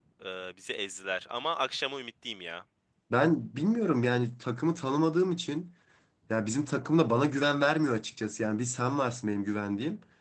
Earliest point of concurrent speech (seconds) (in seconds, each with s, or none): none